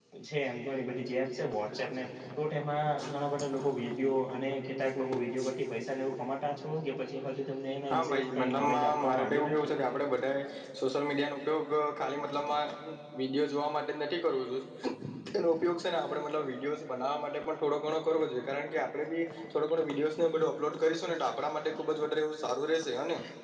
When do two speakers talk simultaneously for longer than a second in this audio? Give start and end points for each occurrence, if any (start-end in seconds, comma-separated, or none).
7.9-9.7